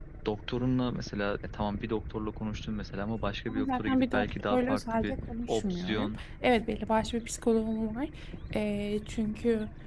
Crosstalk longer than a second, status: present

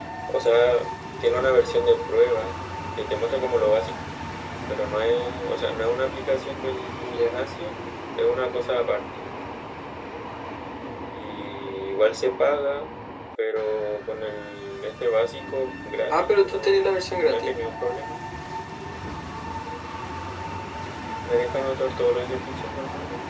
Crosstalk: present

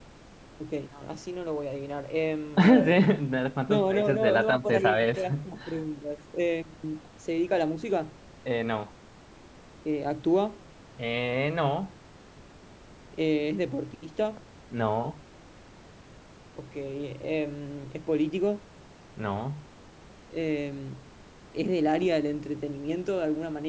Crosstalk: present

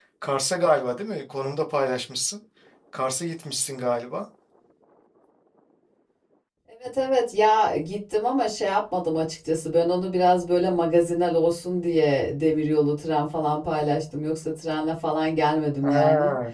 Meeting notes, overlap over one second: none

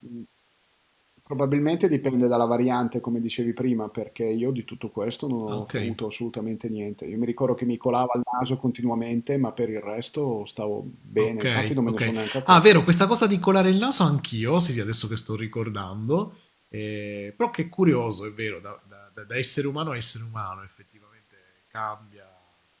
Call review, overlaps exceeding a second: present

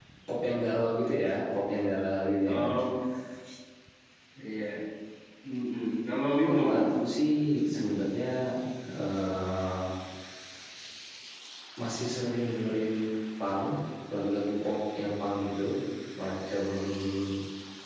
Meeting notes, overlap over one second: none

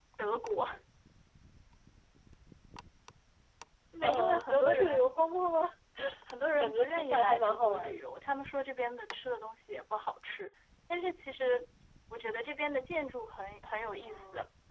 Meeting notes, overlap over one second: present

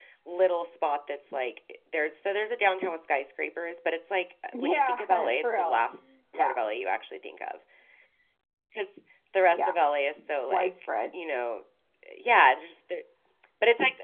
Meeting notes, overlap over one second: present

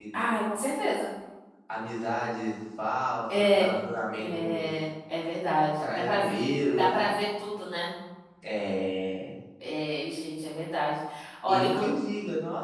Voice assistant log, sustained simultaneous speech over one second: none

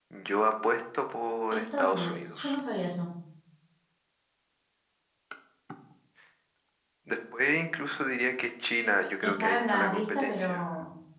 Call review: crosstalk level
present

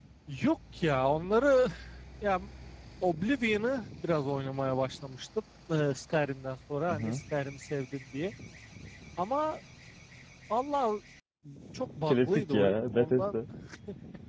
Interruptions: present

